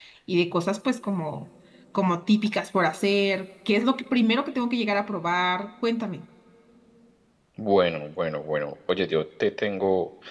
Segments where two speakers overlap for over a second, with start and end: none

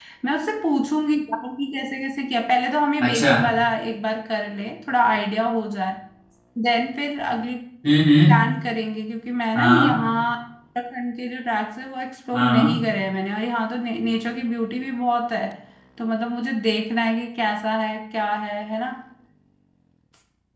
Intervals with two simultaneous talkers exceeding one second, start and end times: none

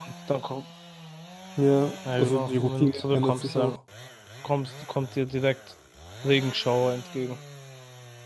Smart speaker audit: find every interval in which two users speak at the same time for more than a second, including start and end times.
2.2-3.7

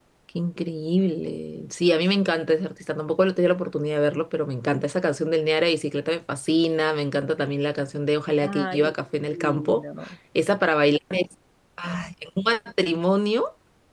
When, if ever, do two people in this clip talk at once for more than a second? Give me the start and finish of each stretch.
8.4-9.8

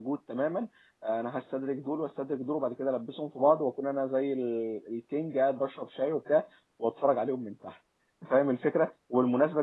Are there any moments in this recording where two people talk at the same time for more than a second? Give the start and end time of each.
none

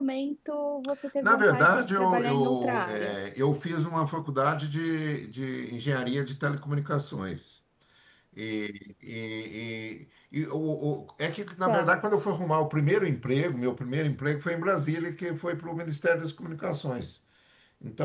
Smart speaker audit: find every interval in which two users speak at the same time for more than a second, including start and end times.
1.2-3.2

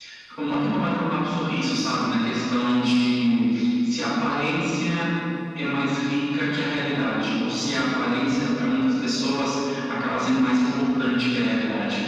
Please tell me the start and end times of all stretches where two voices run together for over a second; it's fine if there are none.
none

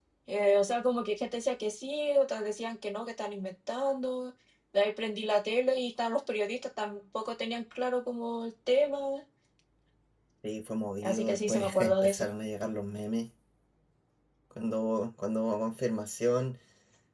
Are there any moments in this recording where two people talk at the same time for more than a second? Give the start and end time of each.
11.0-12.3

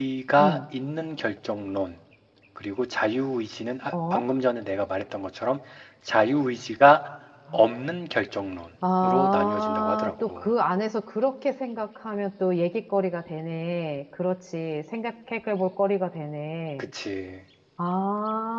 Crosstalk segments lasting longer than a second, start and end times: 9.0-10.5

